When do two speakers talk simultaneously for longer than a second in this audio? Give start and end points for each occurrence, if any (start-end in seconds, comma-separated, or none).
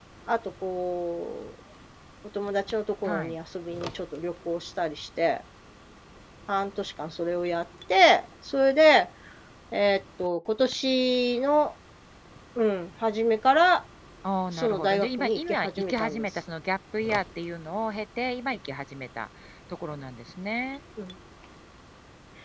14.5-16.2